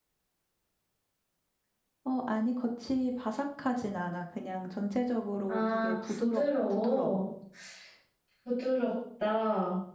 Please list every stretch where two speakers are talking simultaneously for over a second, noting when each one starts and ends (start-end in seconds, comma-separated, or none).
5.5-7.2